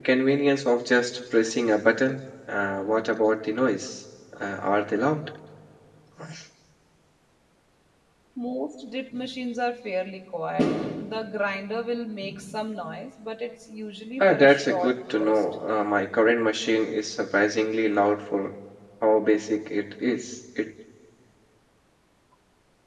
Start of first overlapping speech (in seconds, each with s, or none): 14.2 s